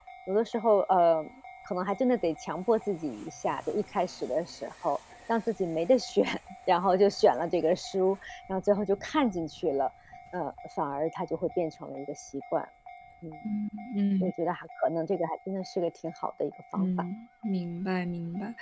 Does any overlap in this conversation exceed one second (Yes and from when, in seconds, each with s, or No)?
No